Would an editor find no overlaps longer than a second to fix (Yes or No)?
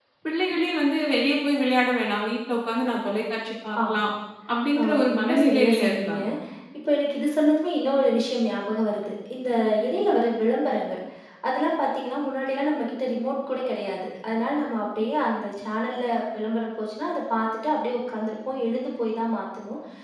No